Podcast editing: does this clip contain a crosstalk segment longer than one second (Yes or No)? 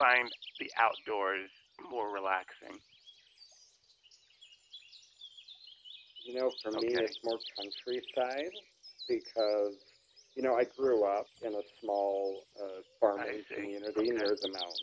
No